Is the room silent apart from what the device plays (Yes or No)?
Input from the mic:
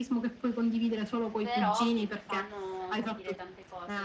No